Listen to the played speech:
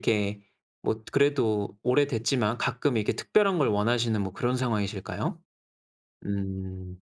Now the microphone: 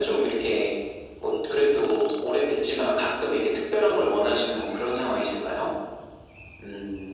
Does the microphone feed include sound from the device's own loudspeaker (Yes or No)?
Yes